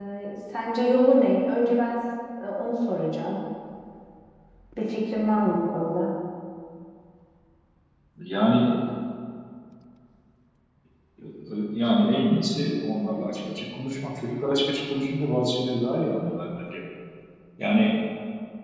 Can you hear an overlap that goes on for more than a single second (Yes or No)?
No